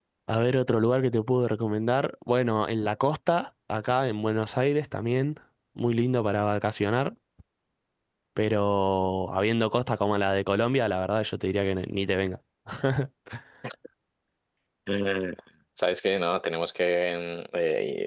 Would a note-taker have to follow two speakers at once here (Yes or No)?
No